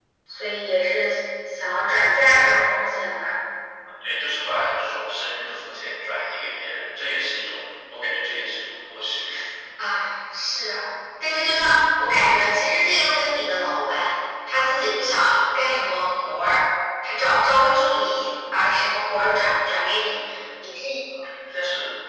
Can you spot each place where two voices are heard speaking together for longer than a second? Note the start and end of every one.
none

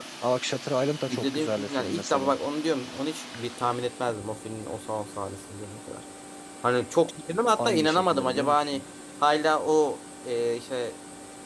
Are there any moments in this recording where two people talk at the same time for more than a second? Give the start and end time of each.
1.1-2.3, 7.6-8.8

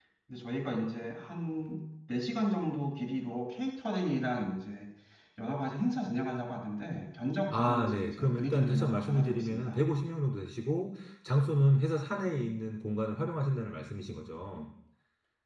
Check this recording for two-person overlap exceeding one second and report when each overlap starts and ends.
7.5-9.8

